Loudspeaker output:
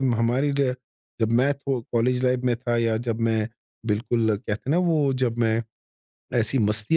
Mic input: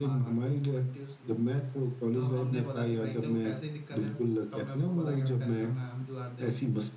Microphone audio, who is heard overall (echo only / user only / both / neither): both